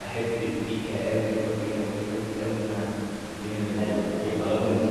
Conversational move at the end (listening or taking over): taking over